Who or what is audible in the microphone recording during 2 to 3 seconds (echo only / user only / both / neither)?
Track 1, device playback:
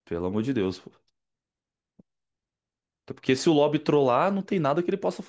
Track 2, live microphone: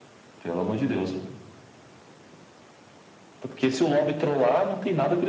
neither